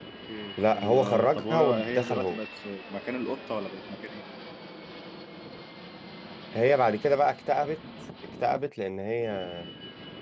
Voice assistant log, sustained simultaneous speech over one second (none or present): present